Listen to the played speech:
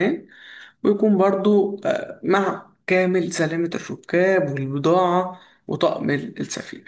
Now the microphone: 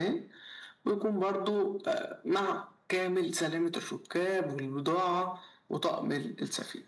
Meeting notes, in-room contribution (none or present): none